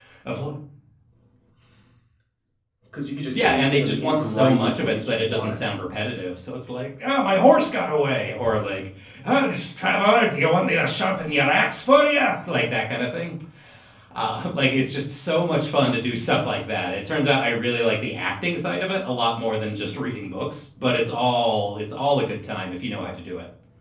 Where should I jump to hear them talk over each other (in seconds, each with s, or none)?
3.3 s